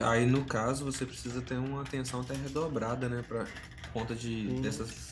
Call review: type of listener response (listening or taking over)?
listening